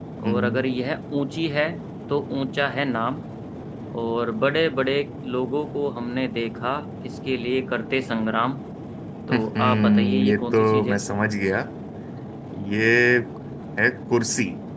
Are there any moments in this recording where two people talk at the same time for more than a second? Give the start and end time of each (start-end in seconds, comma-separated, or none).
9.3-11.0